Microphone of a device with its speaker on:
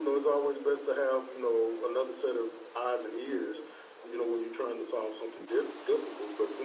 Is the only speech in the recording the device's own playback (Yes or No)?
Yes